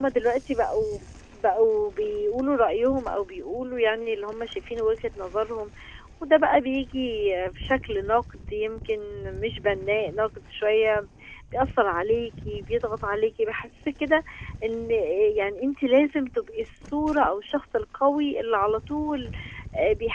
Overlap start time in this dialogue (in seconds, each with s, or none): none